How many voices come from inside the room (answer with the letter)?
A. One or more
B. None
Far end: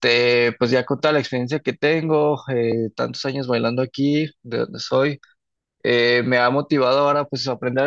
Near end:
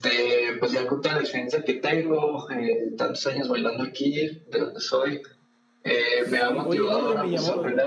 A